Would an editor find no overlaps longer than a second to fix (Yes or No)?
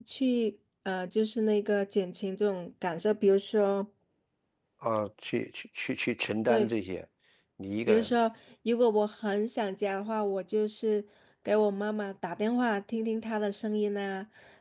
Yes